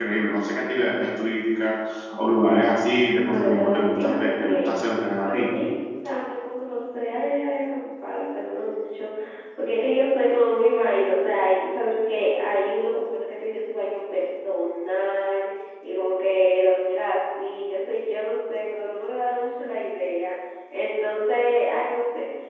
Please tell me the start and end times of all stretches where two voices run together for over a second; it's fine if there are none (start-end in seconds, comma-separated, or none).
3.3-4.7